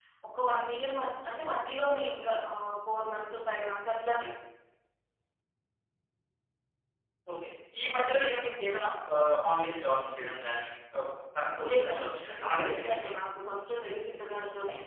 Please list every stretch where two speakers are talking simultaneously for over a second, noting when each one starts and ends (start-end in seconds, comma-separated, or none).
11.7-13.2